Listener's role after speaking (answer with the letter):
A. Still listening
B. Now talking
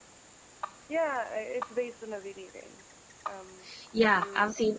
B